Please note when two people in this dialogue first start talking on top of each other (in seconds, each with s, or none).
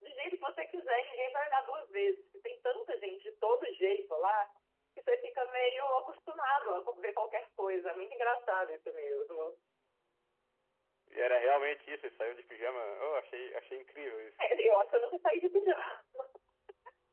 none